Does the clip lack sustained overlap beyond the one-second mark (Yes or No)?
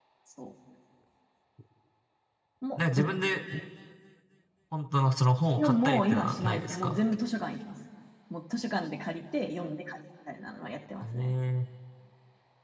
No